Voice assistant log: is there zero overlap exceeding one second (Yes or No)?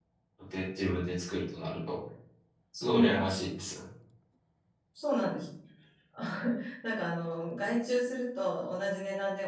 Yes